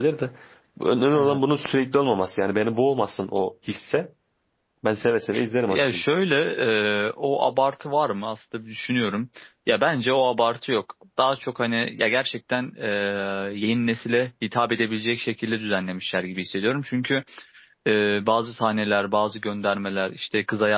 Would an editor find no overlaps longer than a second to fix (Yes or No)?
Yes